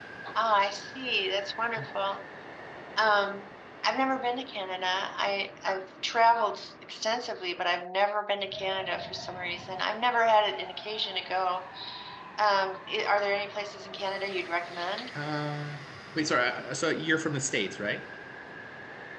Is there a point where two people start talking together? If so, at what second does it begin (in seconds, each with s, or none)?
none